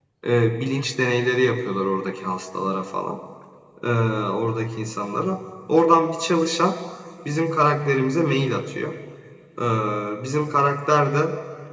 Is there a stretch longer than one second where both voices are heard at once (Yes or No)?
No